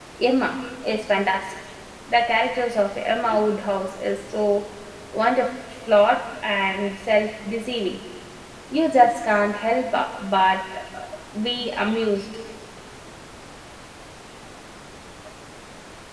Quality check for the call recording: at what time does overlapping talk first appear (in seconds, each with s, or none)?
none